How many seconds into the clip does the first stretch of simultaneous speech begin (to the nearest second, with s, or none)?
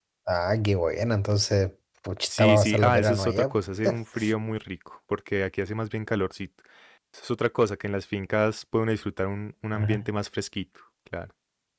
2 s